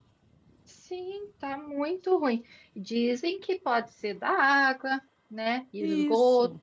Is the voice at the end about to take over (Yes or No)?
No